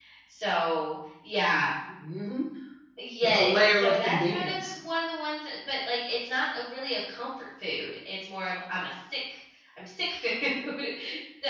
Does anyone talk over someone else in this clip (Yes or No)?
Yes